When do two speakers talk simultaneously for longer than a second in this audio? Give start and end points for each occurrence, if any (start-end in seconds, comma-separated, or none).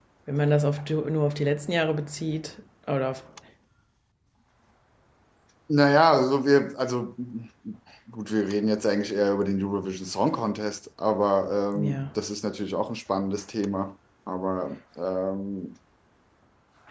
none